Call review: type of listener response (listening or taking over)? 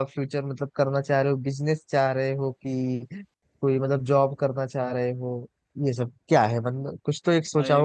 taking over